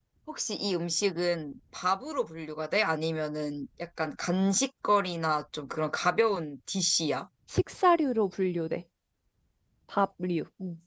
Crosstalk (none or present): none